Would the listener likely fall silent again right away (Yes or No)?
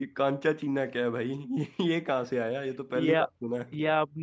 No